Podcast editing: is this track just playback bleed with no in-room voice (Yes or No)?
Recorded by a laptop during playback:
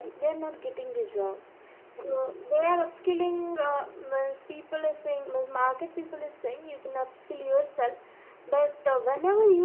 Yes